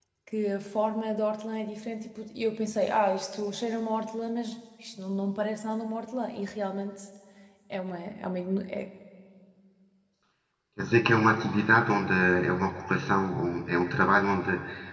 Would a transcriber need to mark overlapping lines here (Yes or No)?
No